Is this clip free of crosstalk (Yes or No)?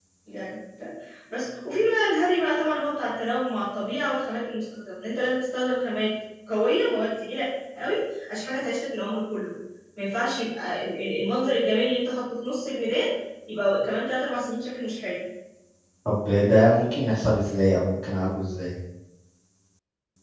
Yes